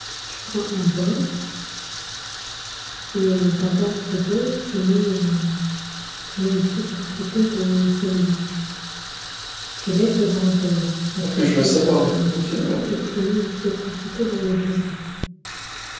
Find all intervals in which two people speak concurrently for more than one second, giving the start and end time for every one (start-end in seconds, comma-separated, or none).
11.2-12.9